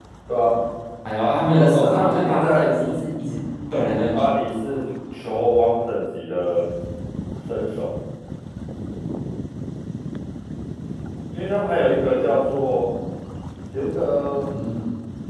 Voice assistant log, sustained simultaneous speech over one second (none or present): present